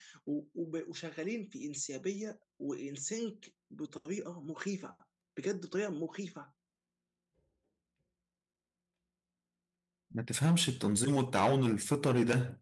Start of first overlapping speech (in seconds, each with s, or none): none